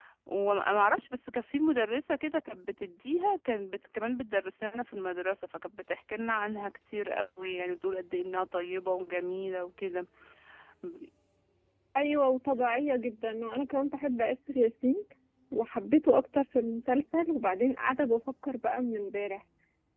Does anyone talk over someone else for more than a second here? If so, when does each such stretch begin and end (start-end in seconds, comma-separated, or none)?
none